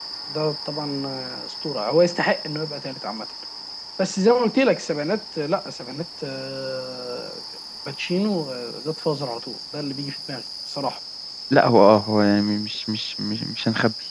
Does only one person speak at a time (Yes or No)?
Yes